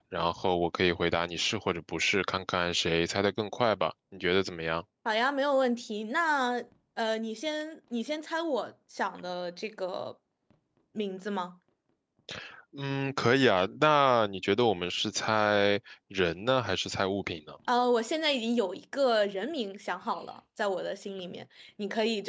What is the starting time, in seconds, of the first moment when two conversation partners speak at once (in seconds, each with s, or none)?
none